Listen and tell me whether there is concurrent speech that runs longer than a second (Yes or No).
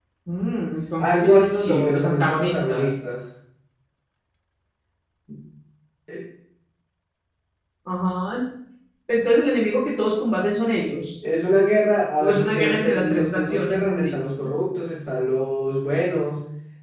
Yes